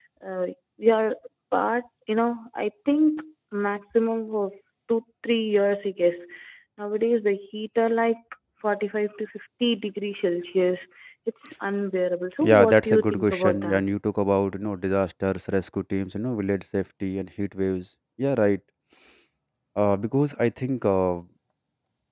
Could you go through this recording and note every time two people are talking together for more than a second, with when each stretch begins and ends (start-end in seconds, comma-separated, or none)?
12.4-13.8